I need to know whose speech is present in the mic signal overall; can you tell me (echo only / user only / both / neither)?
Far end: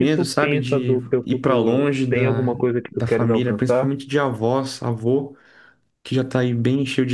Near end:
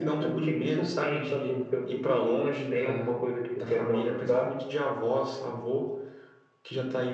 echo only